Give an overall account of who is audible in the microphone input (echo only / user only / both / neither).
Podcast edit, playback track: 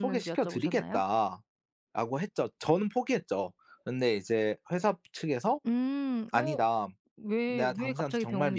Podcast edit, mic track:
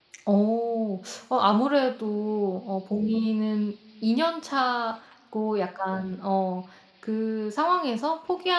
user only